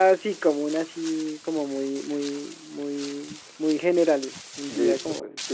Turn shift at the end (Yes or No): Yes